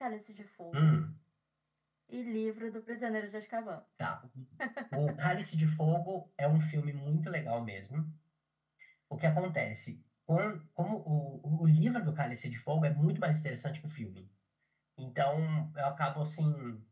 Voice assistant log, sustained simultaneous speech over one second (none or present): none